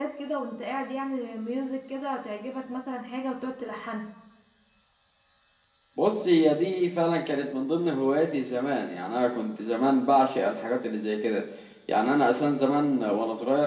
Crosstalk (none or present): none